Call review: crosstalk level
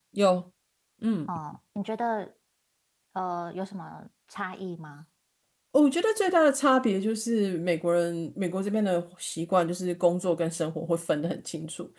none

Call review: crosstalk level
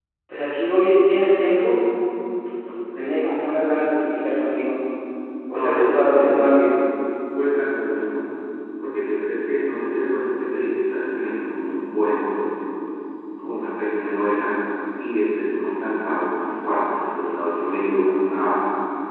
present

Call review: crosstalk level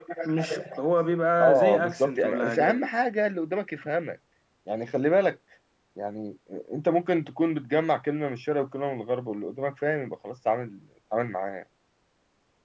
present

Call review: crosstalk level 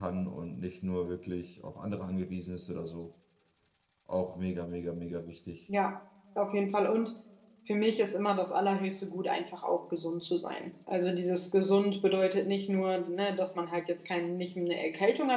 none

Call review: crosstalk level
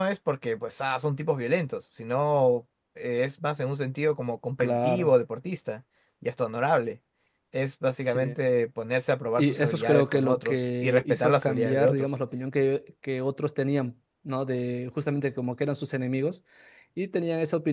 present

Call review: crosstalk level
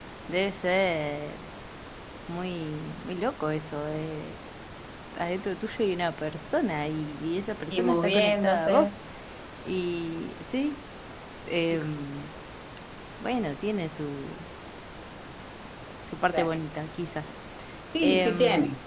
present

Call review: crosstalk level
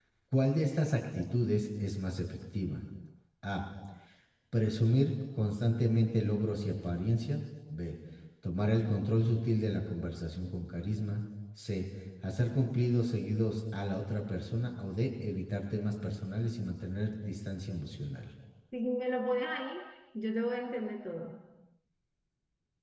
none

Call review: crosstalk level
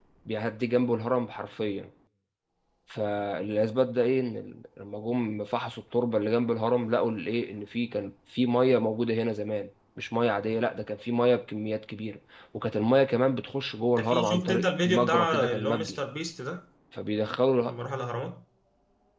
present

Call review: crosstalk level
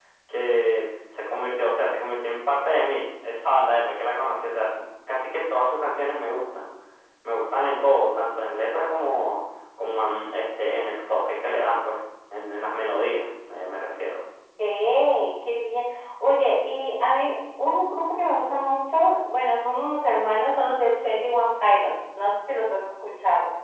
none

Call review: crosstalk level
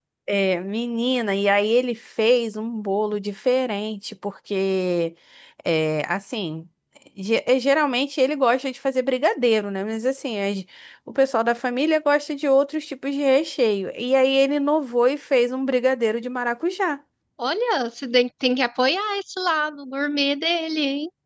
none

